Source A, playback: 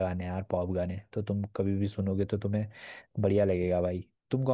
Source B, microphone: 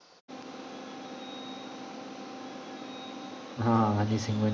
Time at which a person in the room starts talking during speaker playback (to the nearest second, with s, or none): 4 s